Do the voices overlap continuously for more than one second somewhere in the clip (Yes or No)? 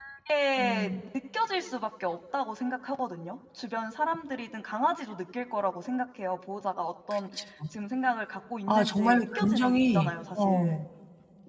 Yes